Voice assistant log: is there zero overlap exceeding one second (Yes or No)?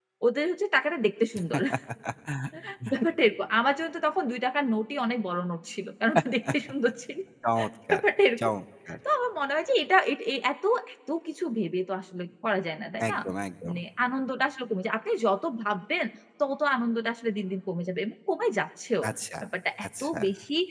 Yes